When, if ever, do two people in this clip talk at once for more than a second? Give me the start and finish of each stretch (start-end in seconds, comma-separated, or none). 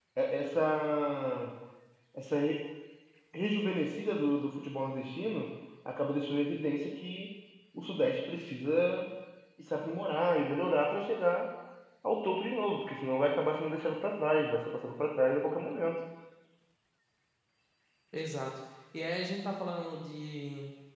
none